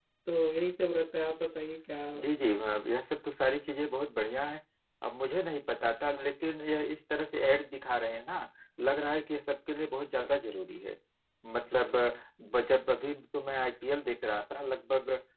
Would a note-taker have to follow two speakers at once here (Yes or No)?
No